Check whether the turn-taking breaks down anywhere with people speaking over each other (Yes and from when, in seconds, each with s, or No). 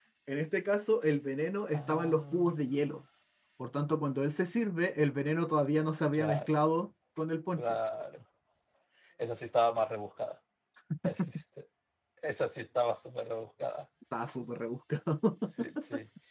Yes, from 1.7 s